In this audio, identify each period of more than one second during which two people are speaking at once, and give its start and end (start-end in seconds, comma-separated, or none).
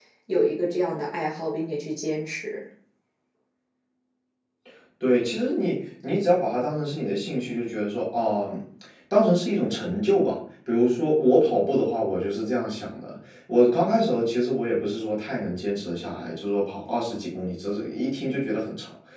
none